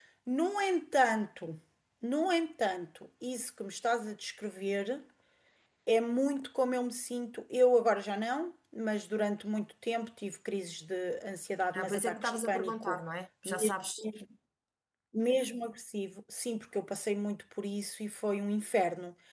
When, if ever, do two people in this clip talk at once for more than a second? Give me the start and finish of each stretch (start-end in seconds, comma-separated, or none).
11.8-13.0